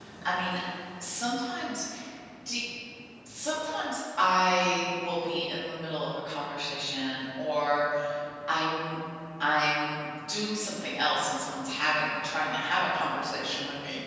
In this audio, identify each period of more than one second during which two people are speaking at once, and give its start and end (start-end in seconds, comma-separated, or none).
none